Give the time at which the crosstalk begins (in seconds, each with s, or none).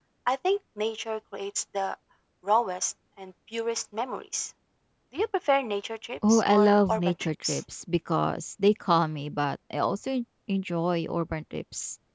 6.2 s